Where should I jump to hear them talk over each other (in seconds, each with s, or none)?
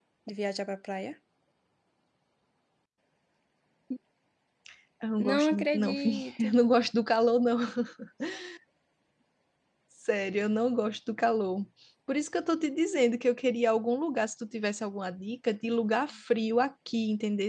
5.2 s